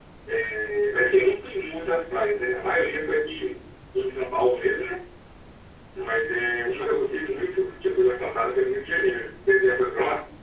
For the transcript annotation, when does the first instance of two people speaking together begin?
none

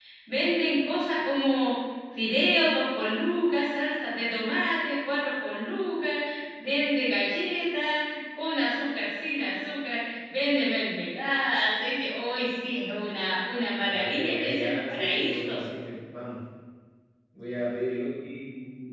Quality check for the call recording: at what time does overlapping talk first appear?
14 s

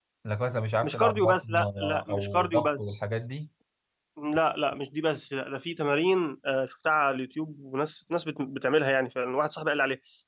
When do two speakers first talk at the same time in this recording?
1 s

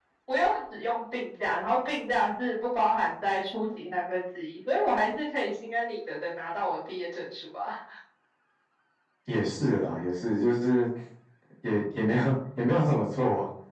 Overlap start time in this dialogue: none

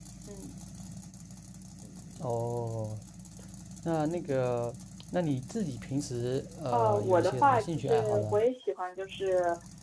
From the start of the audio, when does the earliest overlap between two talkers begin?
7 s

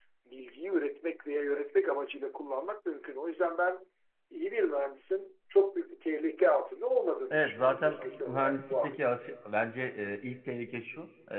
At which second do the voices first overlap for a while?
7 s

